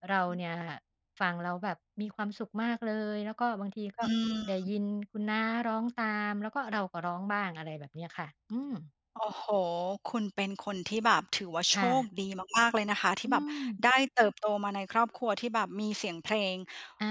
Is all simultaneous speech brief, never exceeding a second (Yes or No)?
Yes